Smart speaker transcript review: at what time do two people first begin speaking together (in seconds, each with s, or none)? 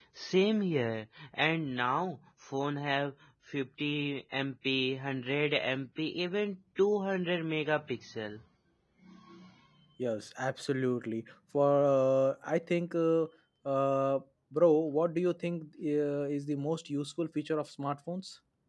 none